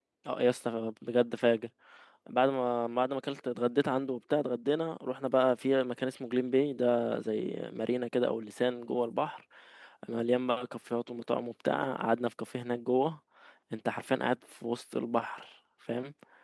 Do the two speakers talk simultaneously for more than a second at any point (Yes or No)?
No